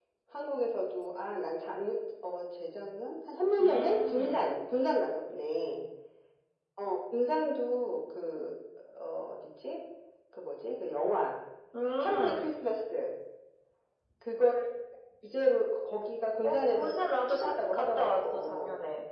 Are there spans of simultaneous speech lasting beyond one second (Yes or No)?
Yes